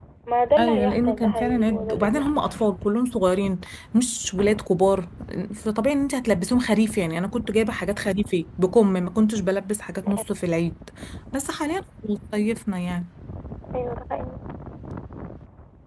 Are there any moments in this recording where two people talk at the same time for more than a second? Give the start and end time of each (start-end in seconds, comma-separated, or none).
0.6-2.2